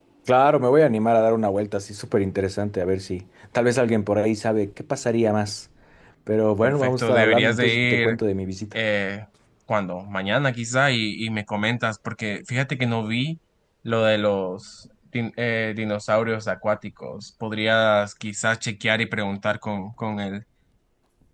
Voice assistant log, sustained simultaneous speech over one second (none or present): present